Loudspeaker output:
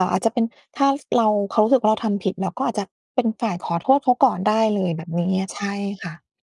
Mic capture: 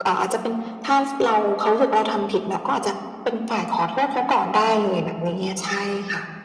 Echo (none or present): present